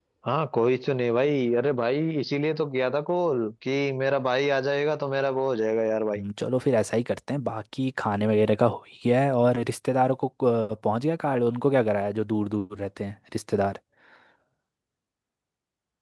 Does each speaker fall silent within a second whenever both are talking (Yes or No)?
Yes